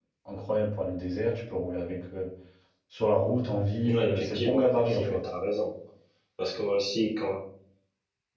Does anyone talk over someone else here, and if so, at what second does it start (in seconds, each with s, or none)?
3.9 s